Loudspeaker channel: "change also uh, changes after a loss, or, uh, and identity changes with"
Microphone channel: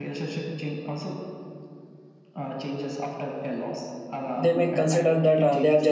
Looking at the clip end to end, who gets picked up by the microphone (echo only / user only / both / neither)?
both